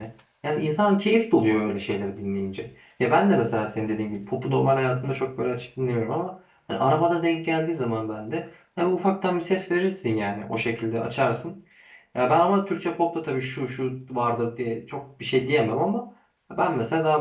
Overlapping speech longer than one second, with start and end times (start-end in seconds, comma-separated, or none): none